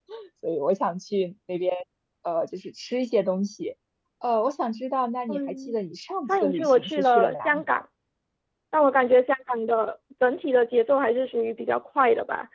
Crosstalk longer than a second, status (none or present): present